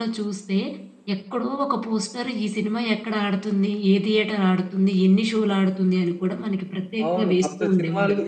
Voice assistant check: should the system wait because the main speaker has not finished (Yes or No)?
No